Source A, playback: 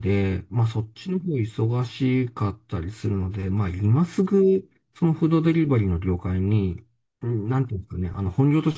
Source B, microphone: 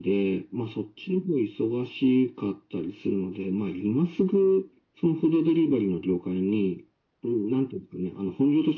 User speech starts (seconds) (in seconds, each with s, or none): none